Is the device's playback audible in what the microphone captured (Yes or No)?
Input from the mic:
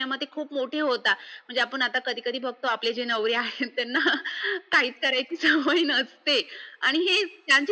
Yes